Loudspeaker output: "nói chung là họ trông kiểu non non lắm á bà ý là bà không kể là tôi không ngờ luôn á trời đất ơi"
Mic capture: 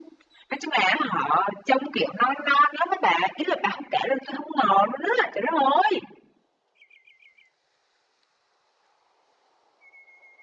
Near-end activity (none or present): none